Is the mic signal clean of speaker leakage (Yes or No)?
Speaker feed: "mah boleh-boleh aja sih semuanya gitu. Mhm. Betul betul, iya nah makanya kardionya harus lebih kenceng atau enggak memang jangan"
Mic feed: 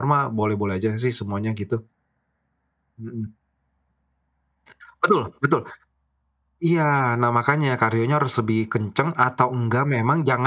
No